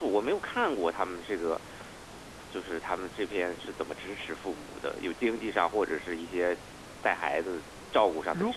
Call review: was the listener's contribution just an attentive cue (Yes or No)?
No